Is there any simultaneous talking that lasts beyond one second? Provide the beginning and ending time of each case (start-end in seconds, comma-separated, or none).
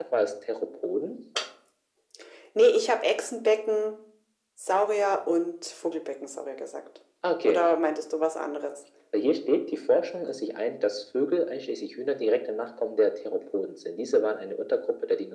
none